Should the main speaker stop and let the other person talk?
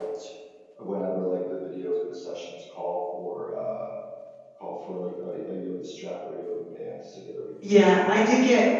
Yes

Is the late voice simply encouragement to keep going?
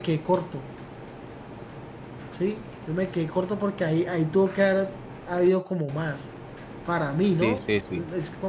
No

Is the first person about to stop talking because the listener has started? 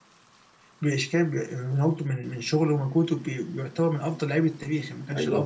Yes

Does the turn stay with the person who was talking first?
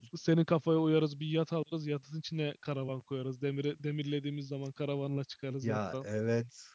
No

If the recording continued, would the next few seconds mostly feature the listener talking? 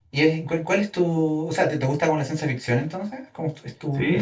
Yes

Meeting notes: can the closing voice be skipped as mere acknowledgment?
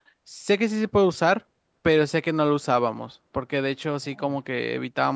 Yes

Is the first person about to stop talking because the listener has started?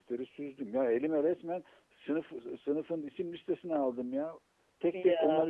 No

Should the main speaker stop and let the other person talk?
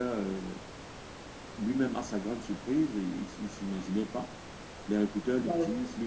No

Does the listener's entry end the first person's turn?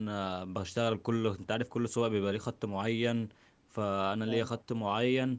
No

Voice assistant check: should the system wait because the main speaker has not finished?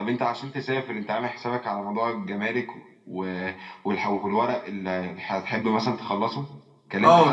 No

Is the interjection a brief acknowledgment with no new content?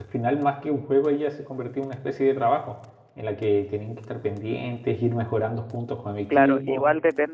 No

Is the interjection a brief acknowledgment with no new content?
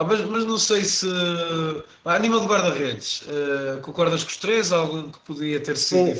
No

